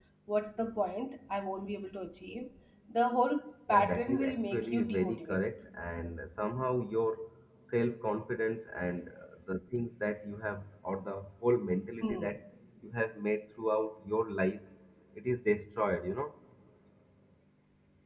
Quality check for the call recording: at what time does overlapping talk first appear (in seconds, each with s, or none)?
3.7 s